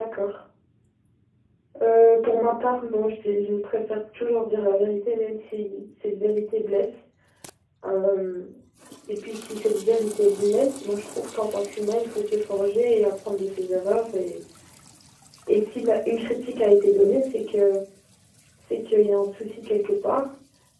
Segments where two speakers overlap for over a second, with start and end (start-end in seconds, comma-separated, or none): none